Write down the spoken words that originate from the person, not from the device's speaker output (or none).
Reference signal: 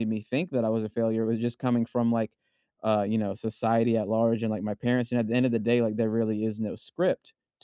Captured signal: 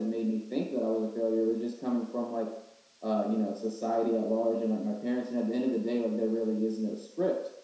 none